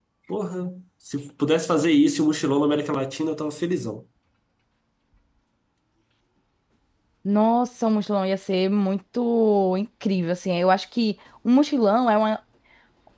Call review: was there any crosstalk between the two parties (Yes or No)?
No